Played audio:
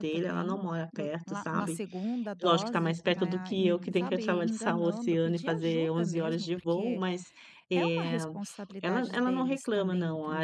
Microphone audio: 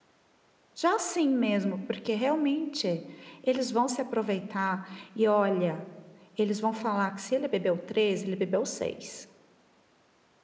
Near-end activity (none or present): present